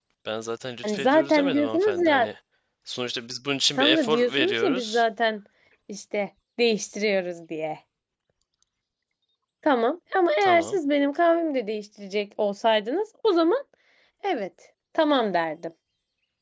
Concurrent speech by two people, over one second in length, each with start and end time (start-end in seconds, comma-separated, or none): 0.8-2.3, 3.8-5.0